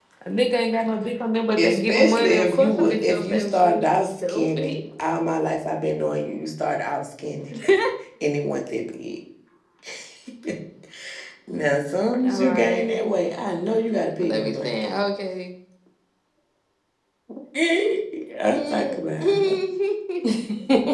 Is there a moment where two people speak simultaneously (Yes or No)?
Yes